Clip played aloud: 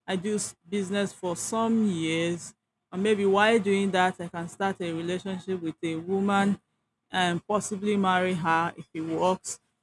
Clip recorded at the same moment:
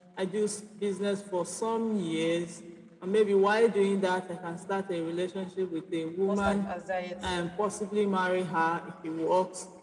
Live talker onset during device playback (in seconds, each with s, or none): 6.2 s